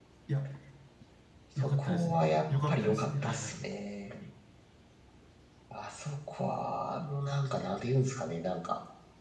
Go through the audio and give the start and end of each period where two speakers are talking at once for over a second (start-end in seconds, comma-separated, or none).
1.6-3.5